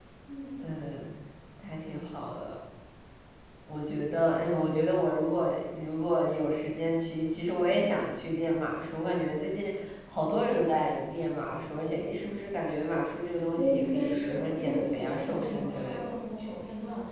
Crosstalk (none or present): present